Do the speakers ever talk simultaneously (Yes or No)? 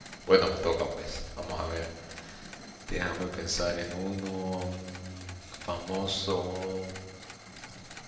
No